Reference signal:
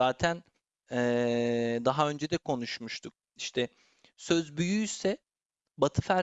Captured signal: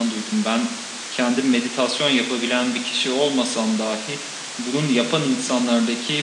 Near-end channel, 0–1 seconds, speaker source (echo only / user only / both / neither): user only